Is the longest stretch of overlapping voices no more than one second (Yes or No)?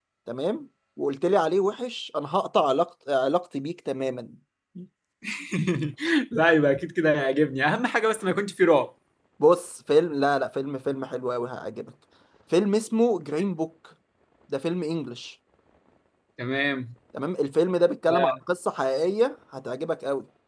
Yes